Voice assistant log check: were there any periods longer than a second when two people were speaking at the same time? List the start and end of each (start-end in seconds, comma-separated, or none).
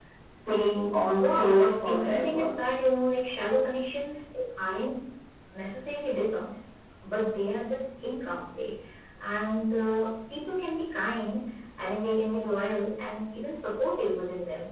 1.2-2.5